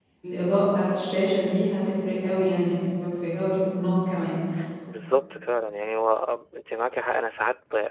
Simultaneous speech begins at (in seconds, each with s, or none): none